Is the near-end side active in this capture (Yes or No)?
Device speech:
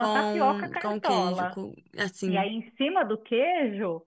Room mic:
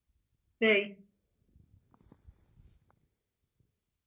Yes